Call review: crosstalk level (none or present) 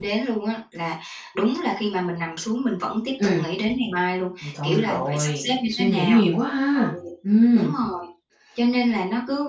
present